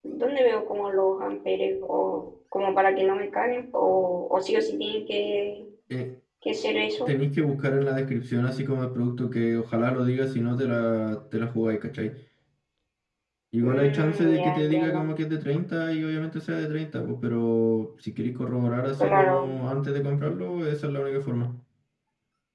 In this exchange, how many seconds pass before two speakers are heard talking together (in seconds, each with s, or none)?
13.6 s